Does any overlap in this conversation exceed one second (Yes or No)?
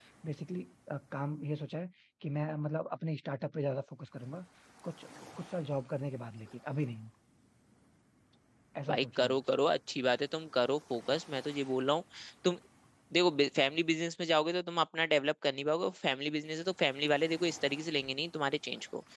No